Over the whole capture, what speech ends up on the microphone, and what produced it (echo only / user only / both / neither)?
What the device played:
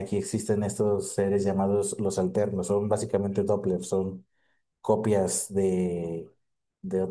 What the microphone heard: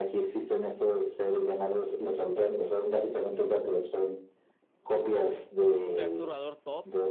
both